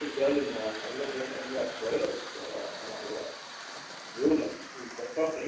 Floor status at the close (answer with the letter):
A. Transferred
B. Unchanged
B